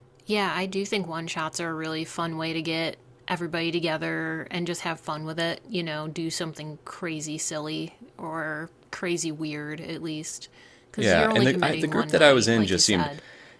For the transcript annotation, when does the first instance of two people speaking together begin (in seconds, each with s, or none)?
11.0 s